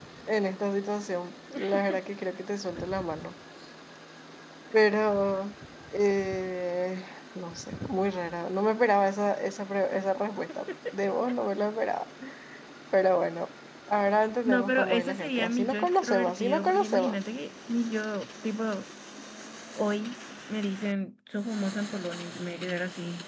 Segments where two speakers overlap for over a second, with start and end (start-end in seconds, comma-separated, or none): 14.4-17.2